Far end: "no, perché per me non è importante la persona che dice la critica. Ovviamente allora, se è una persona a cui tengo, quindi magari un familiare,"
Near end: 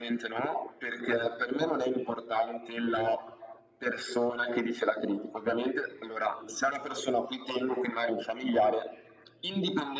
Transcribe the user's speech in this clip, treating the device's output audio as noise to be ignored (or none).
none